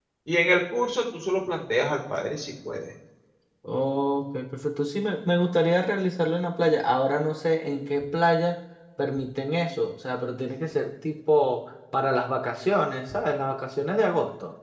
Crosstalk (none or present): none